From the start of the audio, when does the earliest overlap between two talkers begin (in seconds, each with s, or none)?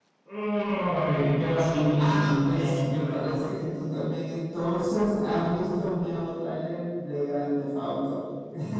1.9 s